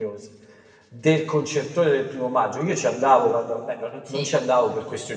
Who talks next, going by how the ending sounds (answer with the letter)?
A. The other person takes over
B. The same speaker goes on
B